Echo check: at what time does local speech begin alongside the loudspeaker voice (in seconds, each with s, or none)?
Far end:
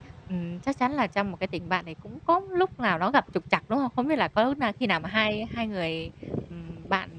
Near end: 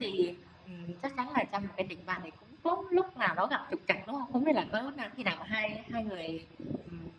none